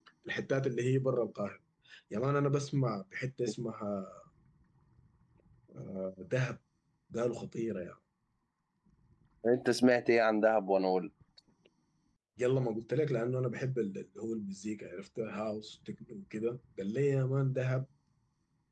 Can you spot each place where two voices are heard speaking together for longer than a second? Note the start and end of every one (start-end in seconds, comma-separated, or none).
none